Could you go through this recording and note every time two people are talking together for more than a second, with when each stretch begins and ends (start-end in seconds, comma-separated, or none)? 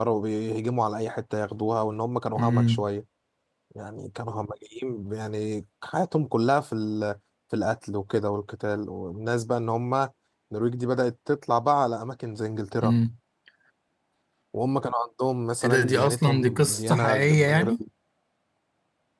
15.6-17.7